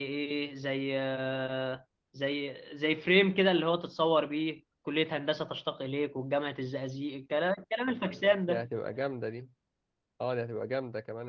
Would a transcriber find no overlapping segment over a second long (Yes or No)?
Yes